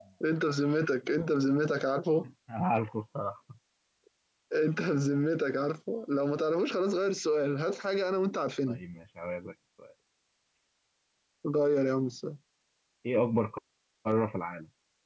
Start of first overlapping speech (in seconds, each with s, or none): none